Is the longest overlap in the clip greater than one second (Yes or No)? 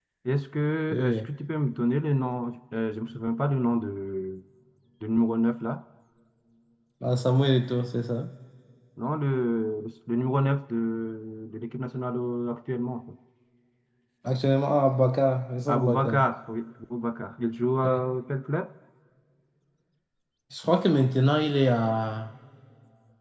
No